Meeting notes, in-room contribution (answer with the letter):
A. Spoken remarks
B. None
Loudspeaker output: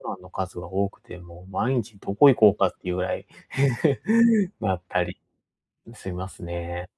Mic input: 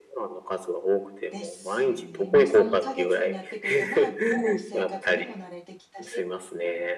A